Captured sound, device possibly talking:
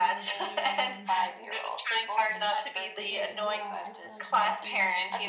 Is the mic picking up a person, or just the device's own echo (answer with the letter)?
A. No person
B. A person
B